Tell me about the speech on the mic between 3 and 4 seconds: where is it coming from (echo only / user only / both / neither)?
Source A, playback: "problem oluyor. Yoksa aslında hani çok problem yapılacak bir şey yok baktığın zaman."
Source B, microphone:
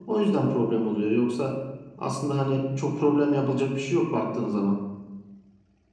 echo only